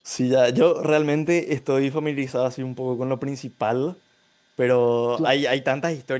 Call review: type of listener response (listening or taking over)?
listening